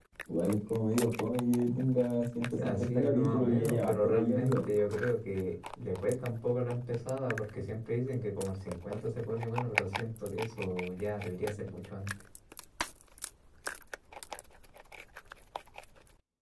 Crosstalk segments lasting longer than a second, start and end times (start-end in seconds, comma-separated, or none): 2.6-4.6